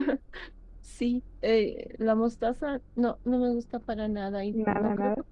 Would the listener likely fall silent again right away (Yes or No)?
Yes